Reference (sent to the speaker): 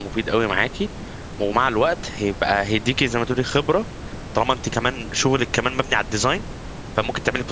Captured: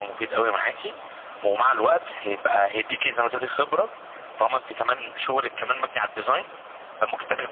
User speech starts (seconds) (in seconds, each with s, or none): none